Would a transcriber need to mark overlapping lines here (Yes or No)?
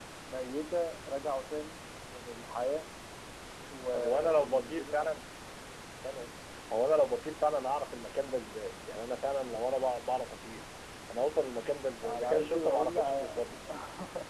Yes